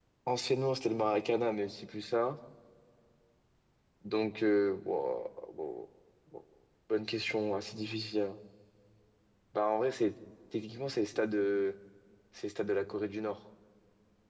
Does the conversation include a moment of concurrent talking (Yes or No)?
No